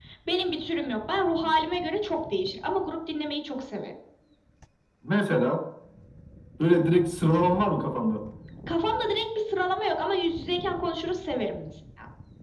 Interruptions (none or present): none